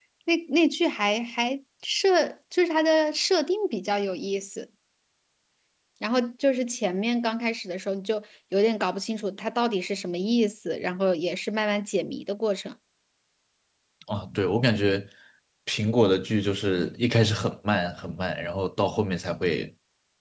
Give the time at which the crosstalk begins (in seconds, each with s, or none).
none